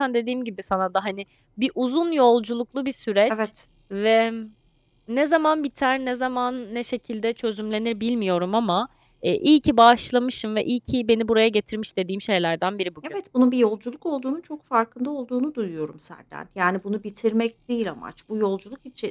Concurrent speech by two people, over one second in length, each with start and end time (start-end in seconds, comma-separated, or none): none